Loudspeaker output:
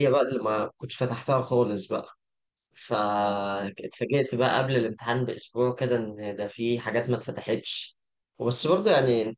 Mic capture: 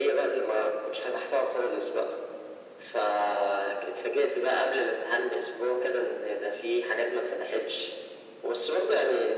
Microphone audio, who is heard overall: echo only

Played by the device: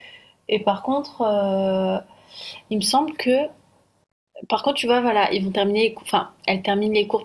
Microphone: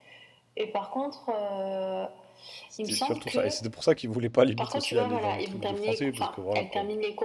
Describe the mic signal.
both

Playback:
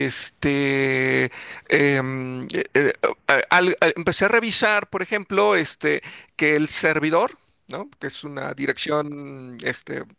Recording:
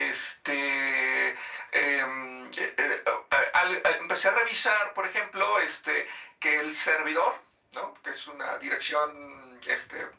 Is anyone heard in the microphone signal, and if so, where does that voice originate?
echo only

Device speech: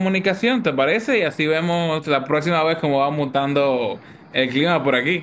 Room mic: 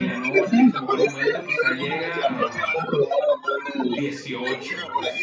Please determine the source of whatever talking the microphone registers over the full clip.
both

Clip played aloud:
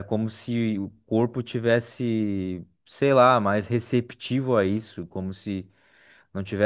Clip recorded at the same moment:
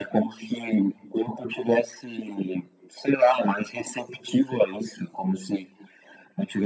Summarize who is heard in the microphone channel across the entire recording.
echo only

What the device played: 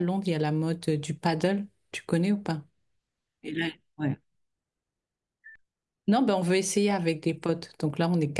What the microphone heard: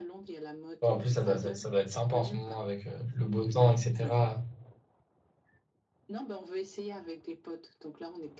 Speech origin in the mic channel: both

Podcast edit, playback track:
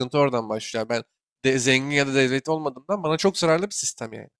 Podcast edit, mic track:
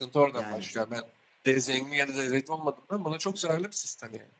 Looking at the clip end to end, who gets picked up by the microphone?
both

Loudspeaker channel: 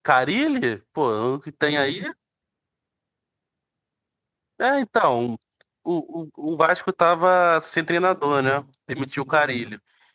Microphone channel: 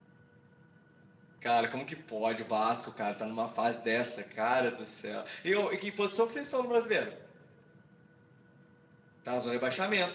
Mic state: user only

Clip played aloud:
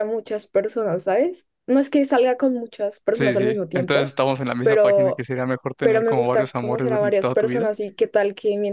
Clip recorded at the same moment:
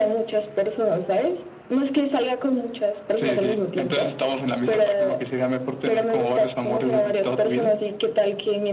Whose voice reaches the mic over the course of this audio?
echo only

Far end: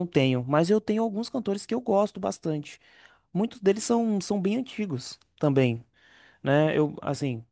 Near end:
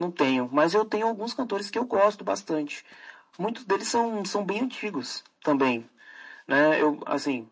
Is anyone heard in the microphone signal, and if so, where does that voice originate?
echo only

